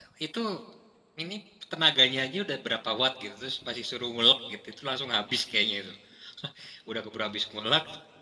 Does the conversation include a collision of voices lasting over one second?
No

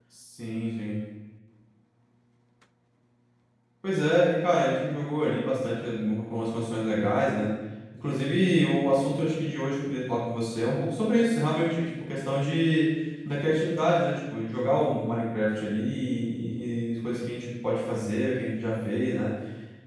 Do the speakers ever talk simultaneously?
No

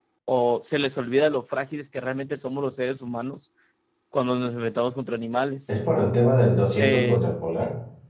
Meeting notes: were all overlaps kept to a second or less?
Yes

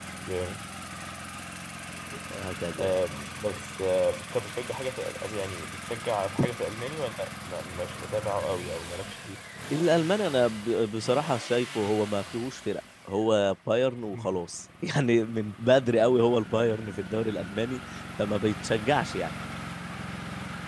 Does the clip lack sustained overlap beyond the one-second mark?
Yes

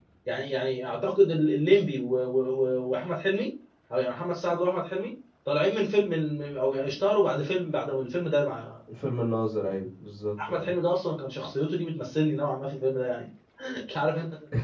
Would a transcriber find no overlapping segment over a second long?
Yes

